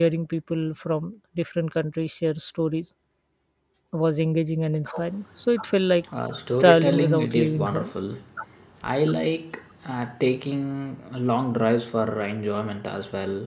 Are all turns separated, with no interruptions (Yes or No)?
No